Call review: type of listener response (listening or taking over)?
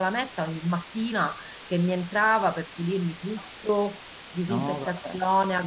listening